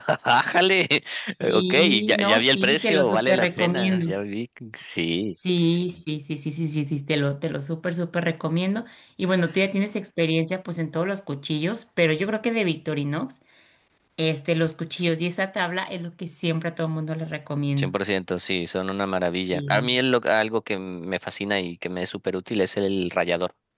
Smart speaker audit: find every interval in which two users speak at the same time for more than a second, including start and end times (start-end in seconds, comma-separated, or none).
1.5-4.2